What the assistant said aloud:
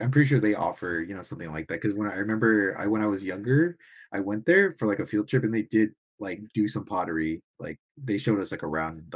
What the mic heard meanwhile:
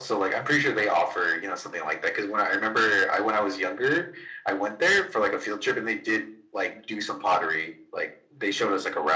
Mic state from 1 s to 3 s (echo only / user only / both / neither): echo only